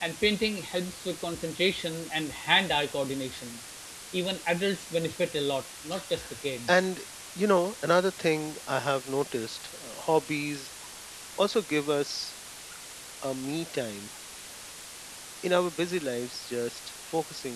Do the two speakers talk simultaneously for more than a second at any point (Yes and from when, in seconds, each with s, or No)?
No